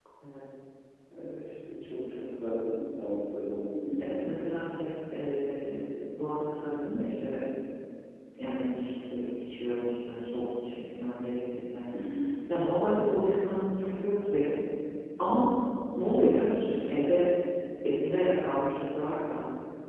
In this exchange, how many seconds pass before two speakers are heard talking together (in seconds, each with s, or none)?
none